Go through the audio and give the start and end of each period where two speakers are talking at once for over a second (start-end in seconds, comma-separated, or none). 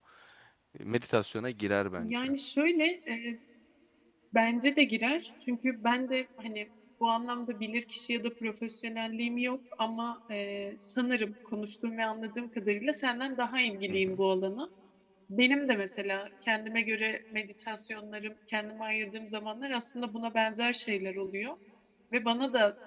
none